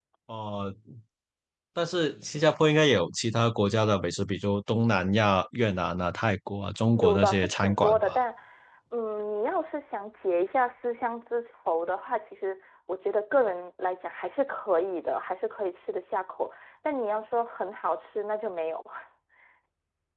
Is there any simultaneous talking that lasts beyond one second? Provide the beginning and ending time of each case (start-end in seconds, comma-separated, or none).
6.9-8.2